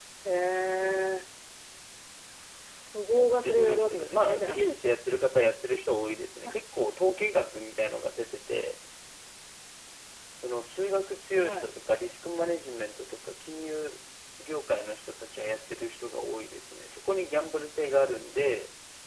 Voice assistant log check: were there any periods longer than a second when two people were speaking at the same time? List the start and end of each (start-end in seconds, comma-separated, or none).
3.1-4.6